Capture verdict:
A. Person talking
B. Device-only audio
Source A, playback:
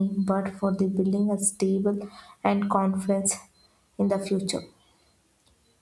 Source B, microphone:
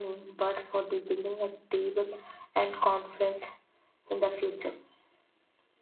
B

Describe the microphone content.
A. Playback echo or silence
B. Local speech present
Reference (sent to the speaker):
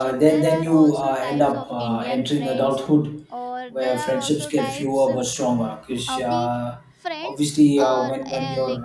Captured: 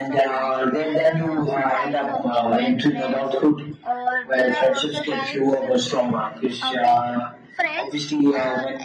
A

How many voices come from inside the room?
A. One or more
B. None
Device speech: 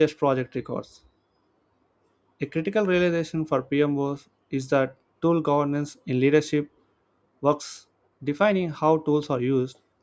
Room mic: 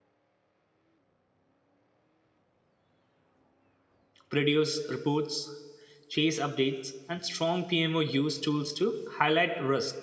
A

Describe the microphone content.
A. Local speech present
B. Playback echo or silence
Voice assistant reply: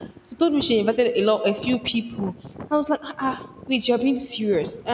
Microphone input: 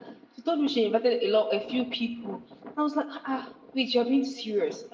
B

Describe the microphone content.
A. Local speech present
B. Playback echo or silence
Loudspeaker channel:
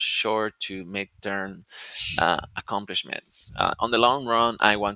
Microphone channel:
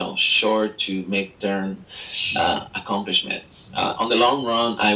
B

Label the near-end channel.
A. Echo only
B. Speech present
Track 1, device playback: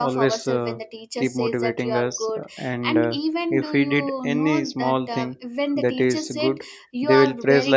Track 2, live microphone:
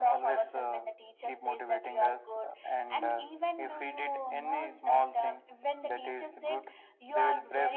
A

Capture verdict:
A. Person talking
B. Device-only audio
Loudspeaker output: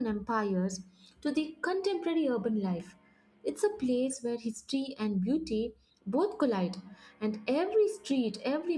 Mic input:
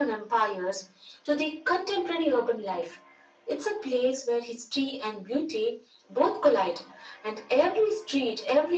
B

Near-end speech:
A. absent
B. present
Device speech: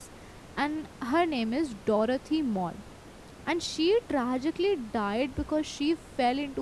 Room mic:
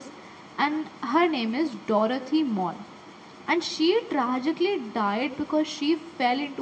A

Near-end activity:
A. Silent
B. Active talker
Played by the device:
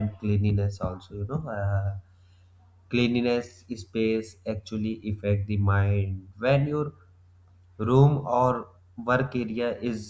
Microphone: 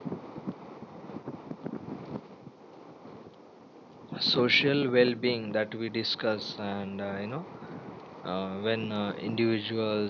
B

